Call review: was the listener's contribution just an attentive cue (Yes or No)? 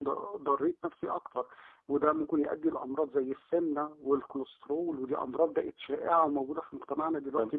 No